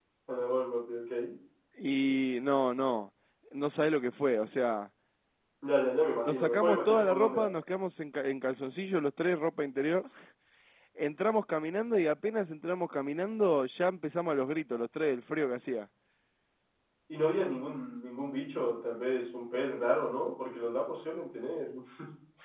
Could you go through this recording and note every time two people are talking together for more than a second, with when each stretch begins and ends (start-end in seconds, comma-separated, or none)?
6.2-7.5